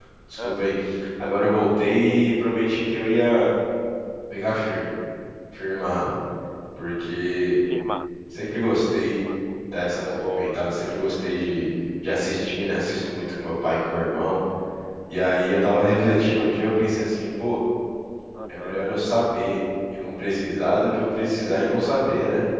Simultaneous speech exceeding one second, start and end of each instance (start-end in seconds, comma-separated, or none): none